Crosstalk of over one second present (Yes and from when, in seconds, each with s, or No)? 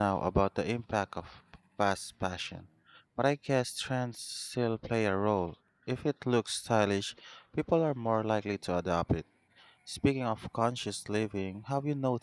No